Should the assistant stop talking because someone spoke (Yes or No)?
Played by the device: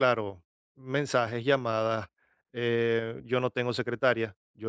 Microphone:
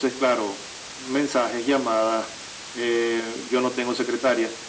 No